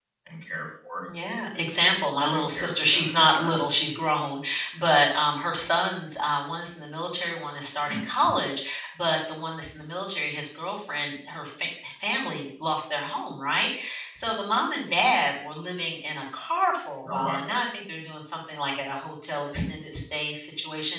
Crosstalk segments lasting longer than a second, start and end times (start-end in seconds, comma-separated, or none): 2.2-3.6